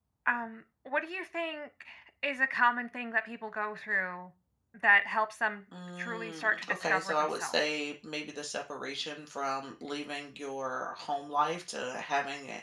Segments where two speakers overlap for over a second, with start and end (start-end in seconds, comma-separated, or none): 6.0-7.5